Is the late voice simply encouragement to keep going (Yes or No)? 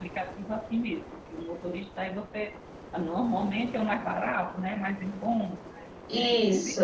No